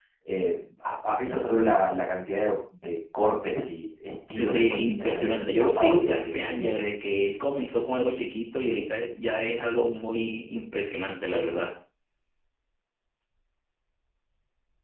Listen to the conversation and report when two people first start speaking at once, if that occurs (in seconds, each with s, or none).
4.4 s